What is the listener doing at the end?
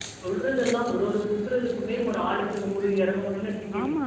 taking over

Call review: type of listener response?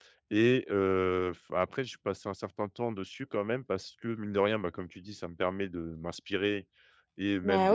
listening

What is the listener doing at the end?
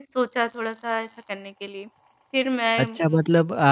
taking over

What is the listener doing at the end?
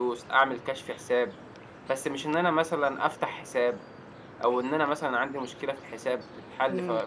taking over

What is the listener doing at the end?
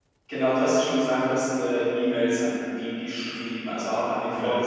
listening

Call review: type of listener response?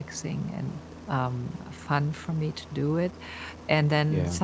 listening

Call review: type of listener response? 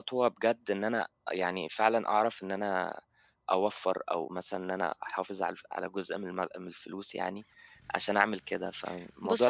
taking over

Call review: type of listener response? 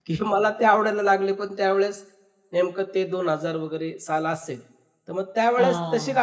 listening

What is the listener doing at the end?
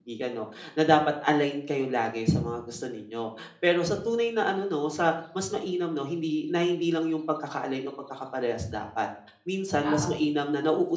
listening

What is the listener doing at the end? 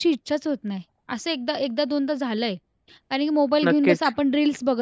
listening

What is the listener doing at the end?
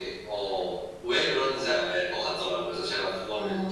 taking over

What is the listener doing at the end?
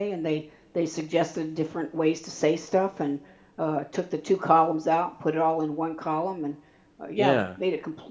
listening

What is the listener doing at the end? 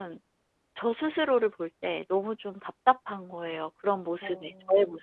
taking over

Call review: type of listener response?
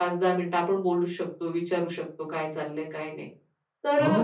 taking over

